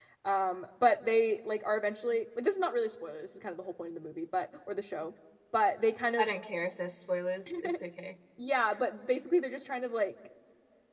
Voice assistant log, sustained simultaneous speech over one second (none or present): none